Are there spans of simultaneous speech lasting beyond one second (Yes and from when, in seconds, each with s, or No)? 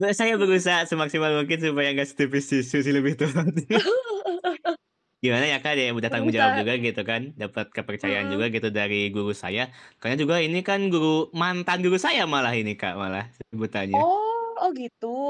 No